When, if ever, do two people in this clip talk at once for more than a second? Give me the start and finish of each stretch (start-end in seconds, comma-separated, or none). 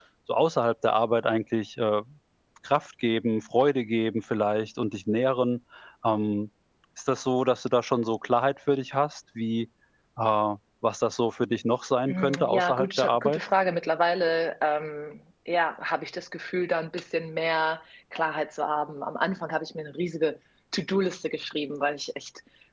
12.1-13.4